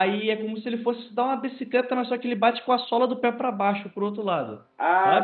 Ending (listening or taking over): taking over